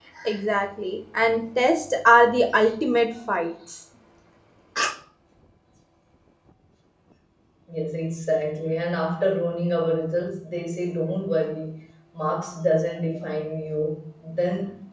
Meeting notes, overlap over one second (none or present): none